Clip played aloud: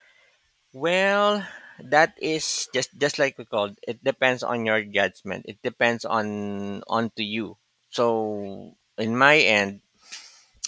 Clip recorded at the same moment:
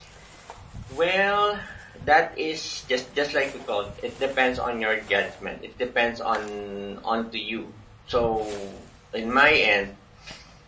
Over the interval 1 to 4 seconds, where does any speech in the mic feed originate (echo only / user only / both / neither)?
echo only